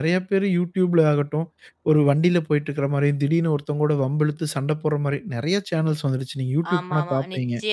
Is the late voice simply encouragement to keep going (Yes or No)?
No